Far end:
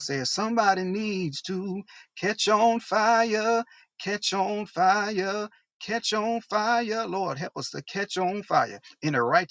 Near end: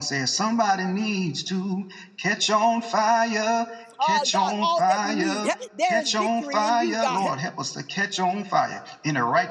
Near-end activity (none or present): present